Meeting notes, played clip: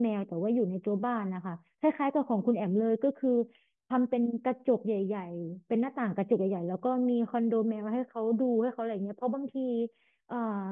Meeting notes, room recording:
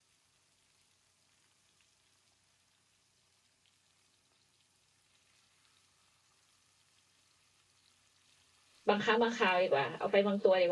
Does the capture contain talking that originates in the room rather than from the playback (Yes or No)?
Yes